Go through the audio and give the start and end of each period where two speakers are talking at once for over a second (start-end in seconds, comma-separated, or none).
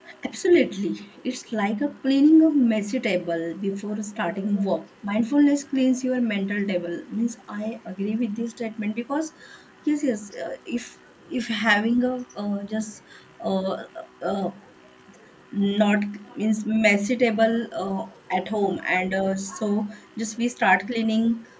none